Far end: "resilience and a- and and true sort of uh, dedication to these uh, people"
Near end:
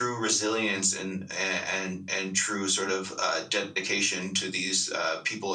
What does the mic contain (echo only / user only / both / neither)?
echo only